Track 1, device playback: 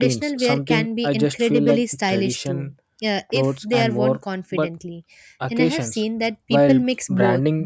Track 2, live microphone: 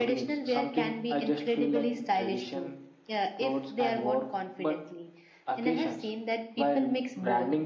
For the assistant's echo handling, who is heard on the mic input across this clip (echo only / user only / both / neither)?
echo only